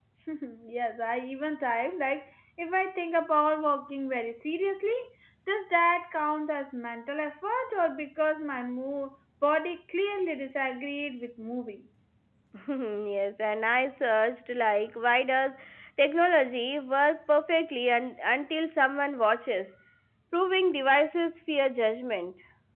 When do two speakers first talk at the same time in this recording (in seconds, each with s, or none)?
none